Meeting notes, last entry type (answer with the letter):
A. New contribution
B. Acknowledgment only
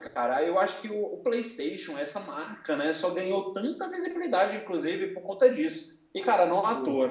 B